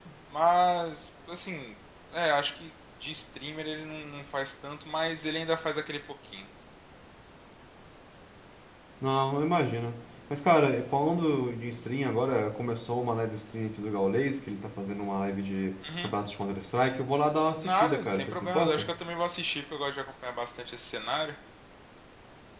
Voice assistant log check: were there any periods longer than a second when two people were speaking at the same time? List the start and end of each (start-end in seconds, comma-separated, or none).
17.6-18.9